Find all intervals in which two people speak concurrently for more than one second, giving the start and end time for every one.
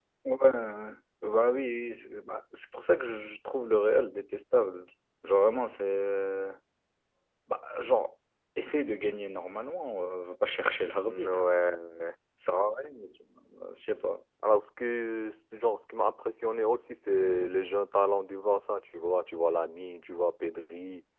none

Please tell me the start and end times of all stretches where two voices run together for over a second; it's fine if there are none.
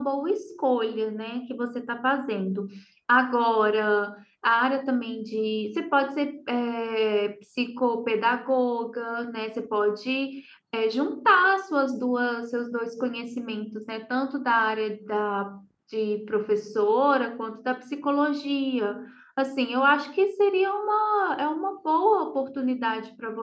none

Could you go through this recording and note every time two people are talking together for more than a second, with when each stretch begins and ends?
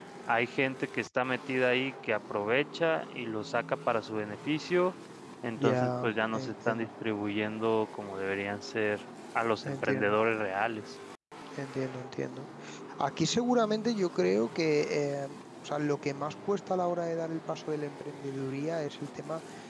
5.6-6.9

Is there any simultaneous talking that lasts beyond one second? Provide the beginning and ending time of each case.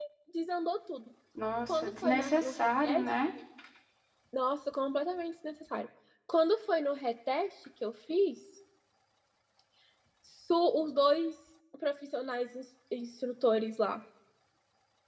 1.7-3.0

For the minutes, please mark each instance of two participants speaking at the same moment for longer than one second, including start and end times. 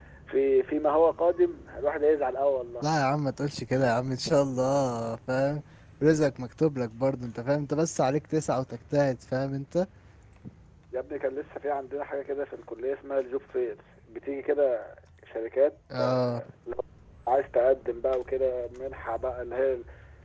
none

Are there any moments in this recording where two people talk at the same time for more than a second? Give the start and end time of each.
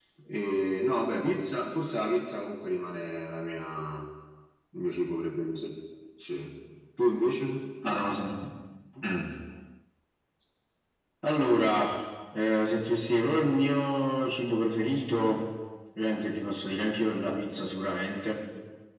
none

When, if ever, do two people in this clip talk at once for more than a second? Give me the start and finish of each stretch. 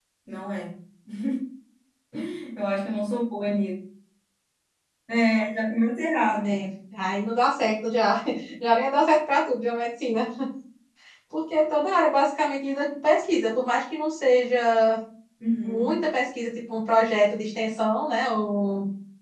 none

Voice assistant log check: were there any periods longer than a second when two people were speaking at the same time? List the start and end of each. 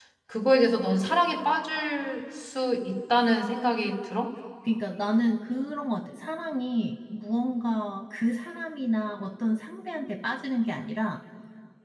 none

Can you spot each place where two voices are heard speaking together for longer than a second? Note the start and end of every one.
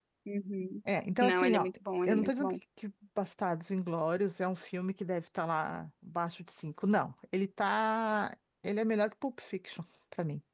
none

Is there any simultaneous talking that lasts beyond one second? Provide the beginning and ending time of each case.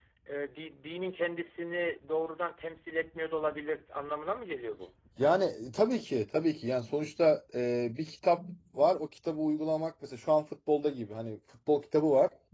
none

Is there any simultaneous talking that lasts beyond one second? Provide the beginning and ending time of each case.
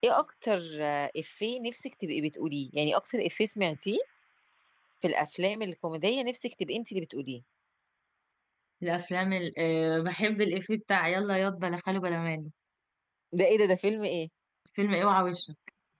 none

